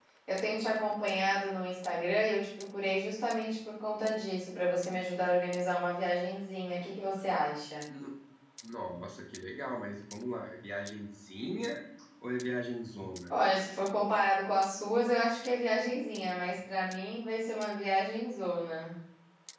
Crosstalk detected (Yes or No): No